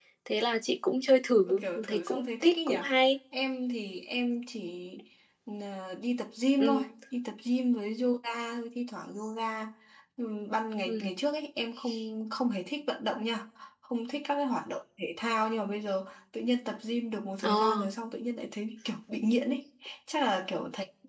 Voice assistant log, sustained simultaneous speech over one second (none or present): present